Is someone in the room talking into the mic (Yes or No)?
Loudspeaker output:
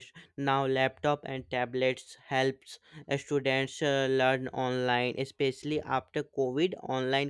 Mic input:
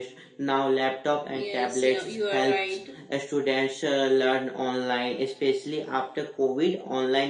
Yes